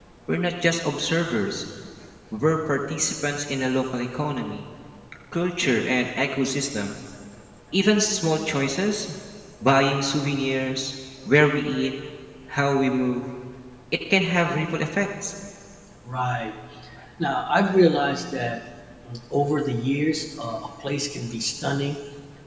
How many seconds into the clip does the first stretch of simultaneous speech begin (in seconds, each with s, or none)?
none